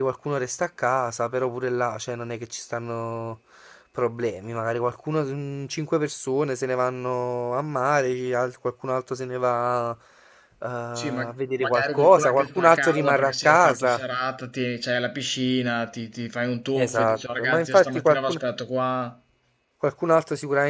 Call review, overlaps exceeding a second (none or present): present